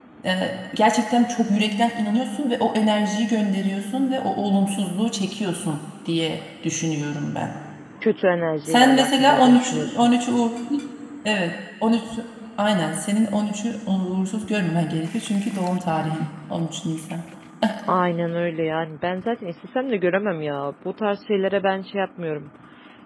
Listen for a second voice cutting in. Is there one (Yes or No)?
Yes